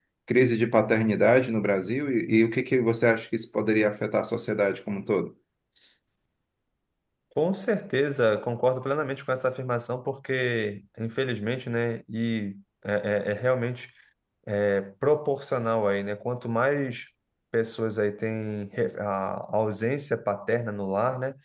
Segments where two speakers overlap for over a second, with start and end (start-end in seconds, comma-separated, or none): none